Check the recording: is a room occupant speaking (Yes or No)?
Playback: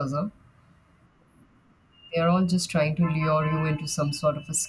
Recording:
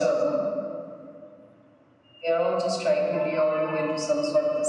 No